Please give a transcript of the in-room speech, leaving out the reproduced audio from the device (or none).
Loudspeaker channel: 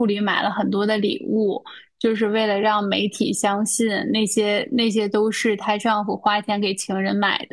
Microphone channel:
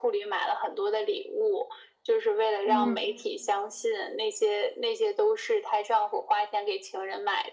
嗯